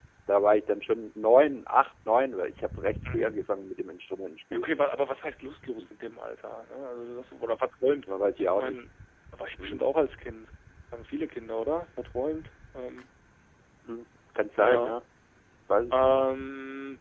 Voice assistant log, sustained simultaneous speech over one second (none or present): none